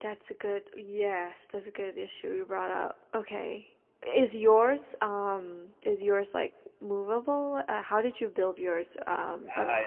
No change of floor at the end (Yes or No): No